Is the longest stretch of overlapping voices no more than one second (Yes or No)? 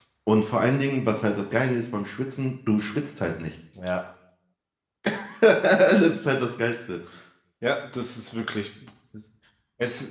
Yes